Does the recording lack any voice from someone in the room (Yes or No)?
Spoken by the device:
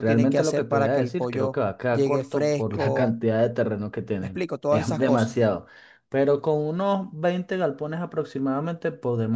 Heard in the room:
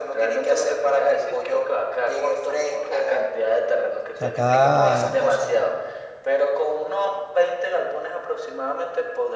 No